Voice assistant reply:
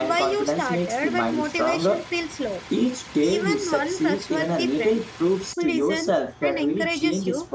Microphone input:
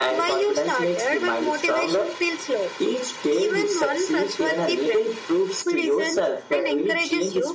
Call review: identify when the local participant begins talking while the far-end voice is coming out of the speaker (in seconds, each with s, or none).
none